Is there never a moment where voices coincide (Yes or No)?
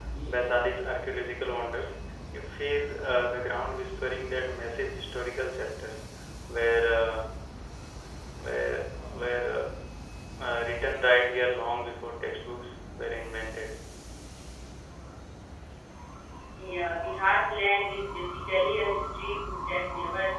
Yes